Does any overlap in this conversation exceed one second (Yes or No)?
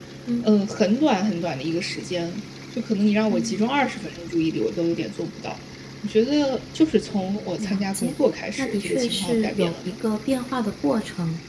Yes